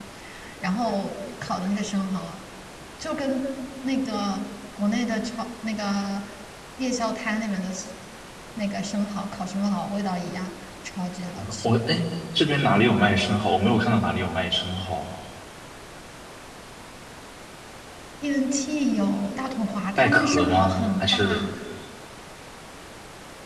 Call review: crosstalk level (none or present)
present